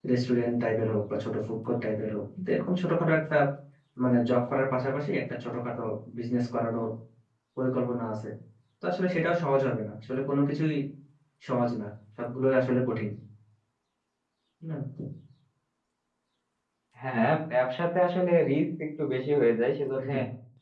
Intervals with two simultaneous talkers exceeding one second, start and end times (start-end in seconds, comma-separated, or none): none